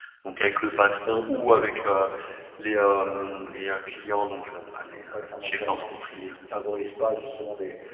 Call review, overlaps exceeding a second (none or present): present